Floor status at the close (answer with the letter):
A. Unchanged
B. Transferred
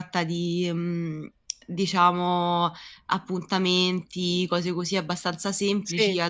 A